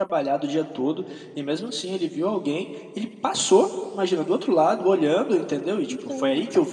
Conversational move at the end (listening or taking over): listening